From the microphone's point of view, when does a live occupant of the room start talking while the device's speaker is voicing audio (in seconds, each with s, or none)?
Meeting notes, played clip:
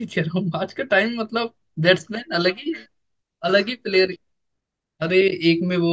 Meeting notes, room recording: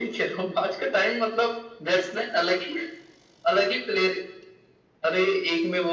none